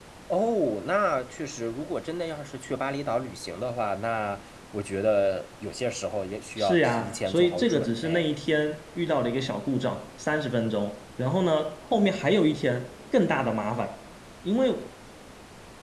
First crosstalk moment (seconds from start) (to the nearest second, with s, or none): 7 s